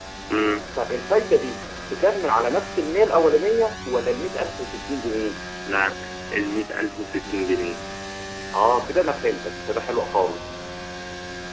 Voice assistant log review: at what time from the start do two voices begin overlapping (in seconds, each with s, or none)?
none